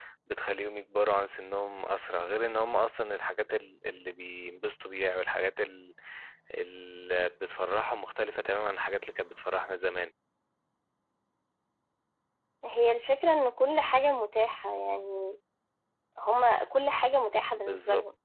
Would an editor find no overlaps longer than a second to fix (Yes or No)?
Yes